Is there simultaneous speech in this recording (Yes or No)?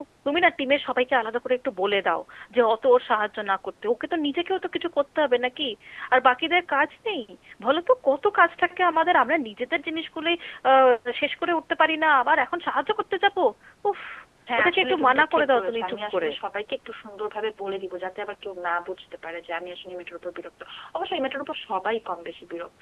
Yes